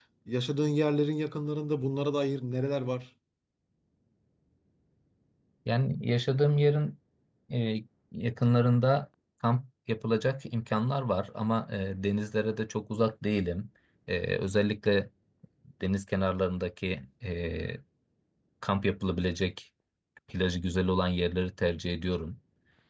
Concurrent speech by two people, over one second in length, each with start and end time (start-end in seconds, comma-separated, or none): none